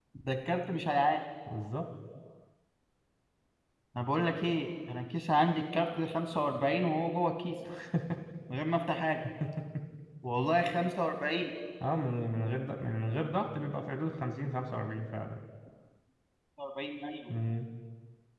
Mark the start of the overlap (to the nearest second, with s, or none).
none